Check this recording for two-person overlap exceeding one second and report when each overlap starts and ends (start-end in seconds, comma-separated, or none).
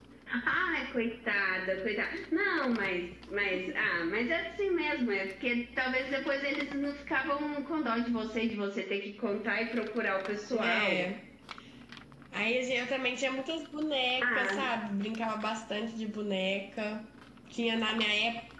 none